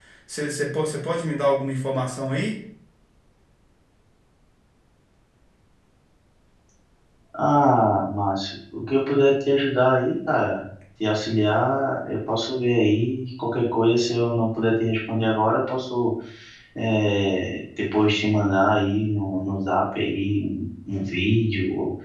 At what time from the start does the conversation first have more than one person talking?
none

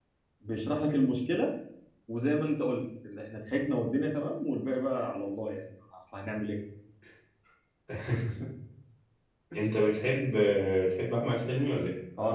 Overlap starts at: none

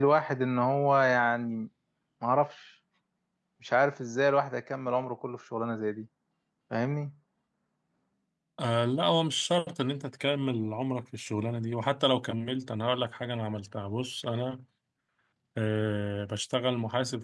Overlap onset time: none

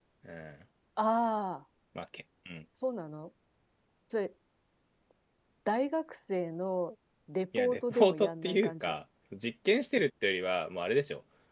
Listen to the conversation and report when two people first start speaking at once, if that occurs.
8 s

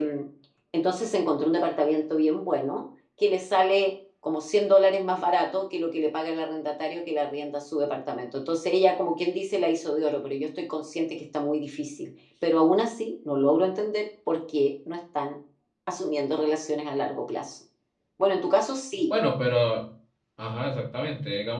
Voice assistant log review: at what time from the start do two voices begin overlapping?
none

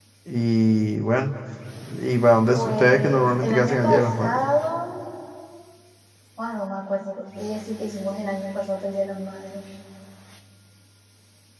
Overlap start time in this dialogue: 3 s

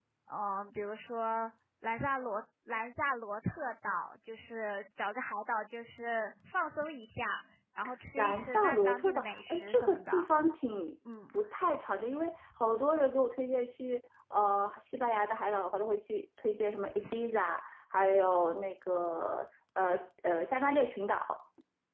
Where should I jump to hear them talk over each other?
8 s

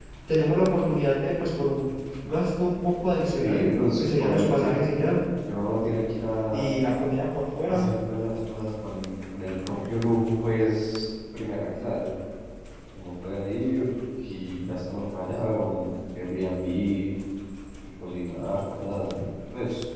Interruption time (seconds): 3 s

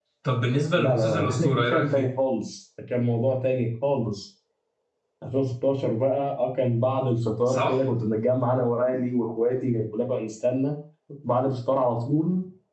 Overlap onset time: 1 s

